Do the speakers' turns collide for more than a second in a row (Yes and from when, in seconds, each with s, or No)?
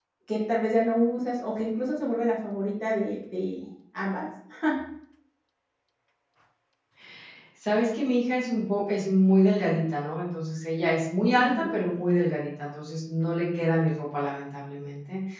No